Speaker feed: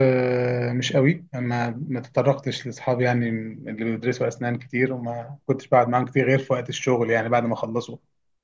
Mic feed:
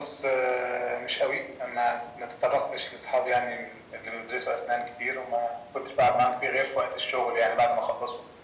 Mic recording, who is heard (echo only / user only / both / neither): echo only